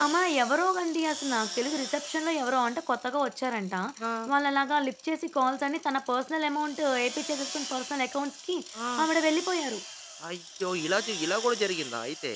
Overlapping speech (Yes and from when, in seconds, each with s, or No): No